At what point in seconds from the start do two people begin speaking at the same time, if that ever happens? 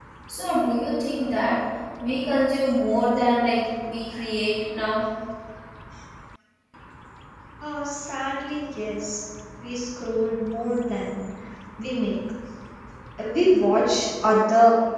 none

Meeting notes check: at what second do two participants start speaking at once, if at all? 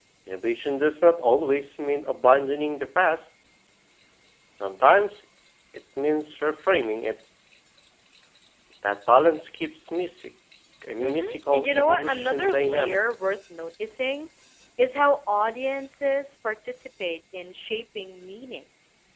11.0 s

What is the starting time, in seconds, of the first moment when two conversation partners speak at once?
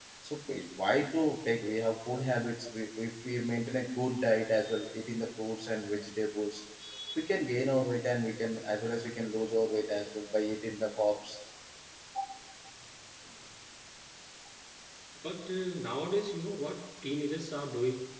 none

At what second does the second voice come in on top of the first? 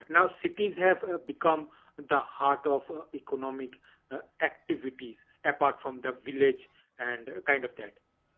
none

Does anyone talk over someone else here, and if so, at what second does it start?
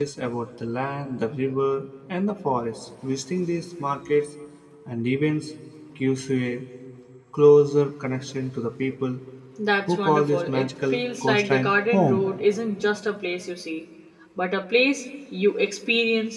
9.9 s

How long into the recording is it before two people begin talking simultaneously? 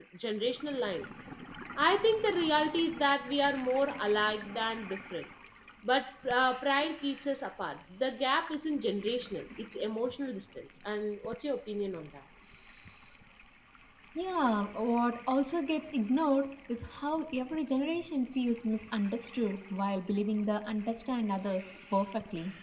none

